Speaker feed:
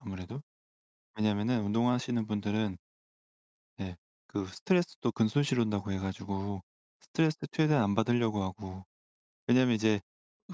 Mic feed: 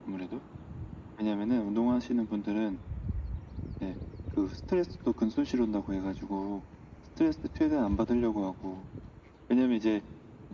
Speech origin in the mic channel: echo only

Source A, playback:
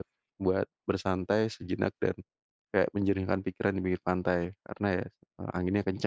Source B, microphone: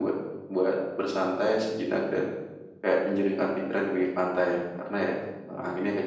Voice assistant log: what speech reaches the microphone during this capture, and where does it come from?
echo only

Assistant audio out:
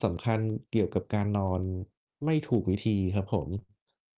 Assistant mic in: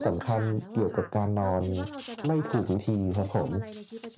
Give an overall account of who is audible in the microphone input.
both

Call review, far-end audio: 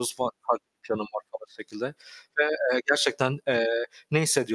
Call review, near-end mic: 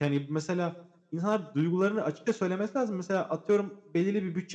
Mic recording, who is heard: user only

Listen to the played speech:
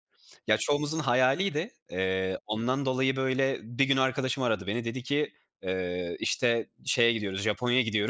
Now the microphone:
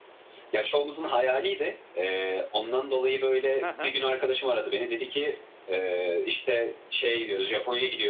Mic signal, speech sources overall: both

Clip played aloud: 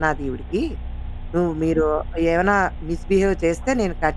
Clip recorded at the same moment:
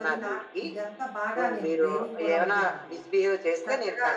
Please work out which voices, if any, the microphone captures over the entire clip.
both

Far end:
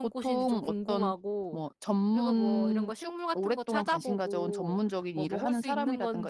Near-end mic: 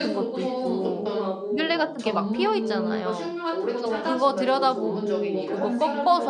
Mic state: both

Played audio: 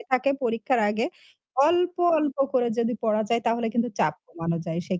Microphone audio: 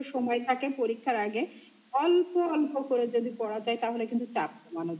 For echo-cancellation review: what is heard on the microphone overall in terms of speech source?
echo only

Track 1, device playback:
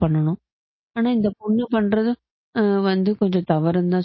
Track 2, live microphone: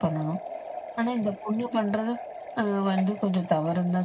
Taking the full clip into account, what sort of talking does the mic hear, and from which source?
echo only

